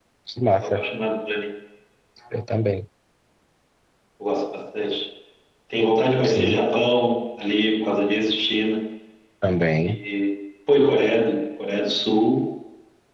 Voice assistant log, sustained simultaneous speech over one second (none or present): none